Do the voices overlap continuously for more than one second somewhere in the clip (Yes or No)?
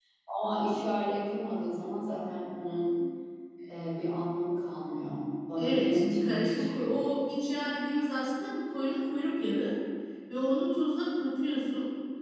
Yes